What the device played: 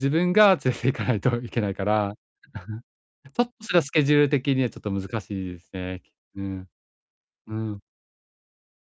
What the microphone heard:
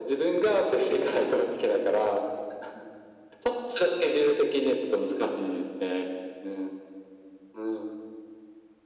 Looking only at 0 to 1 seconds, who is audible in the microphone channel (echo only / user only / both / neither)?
echo only